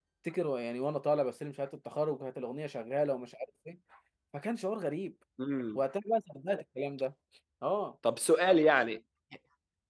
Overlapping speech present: No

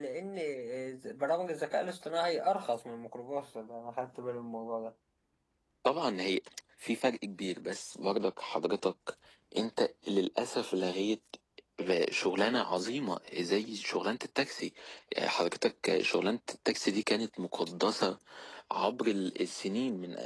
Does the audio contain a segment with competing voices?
No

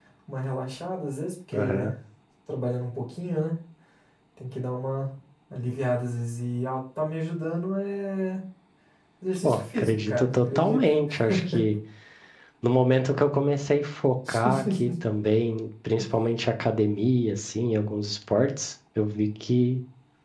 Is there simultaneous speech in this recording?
Yes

